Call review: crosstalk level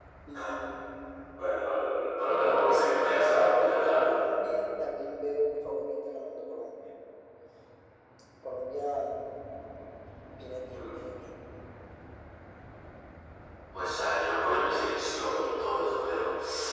present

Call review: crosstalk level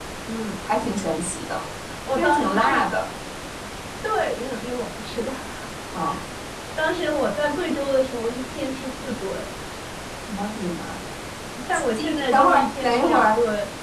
present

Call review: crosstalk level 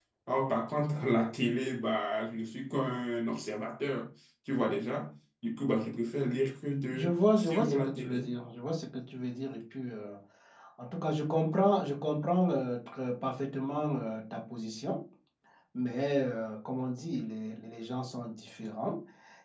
present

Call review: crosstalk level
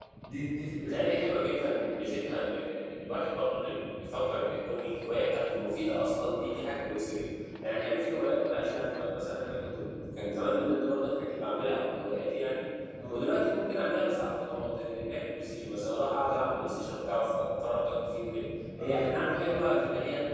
present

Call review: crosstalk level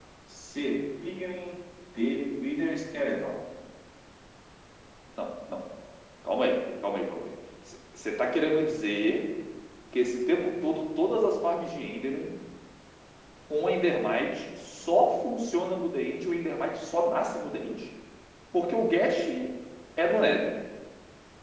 none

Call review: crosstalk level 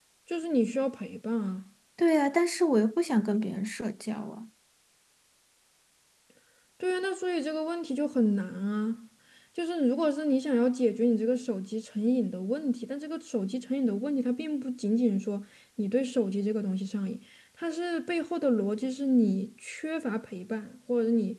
none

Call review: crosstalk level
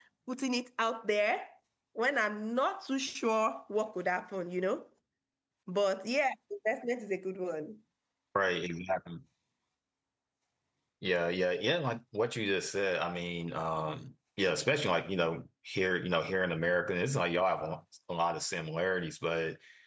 none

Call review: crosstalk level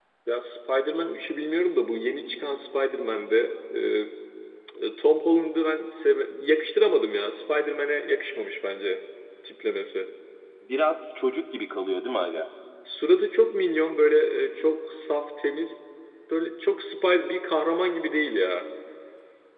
none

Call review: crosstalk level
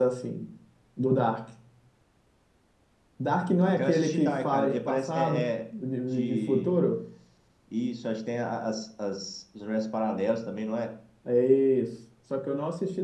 present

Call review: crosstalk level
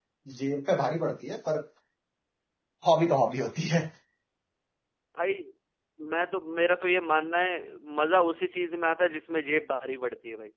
none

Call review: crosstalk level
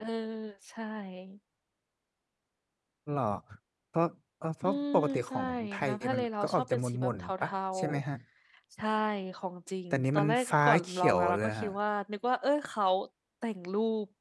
present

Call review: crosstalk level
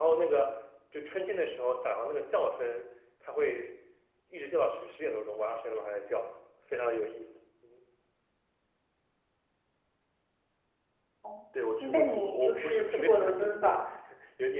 present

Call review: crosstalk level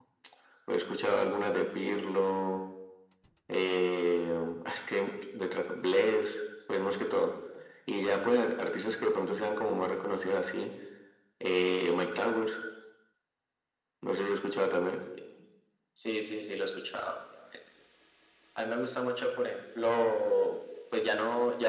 none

